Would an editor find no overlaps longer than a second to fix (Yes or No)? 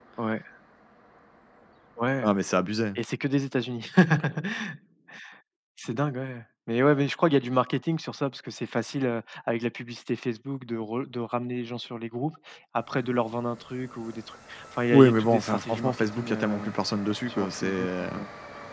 No